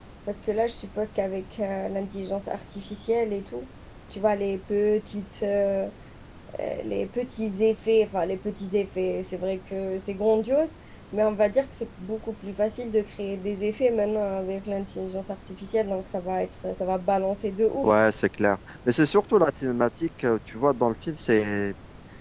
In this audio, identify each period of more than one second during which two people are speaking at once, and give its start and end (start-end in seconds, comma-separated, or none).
none